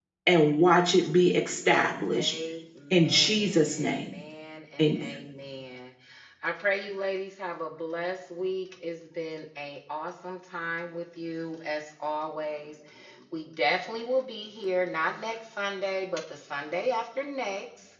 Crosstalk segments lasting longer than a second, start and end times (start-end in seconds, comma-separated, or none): 2.9-4.2